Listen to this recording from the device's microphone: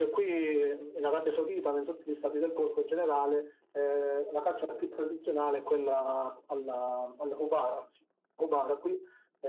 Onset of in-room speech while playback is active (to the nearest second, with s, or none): none